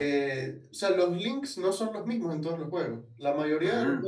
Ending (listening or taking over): listening